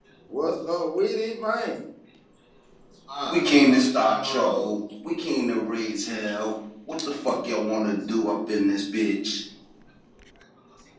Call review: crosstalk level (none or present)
present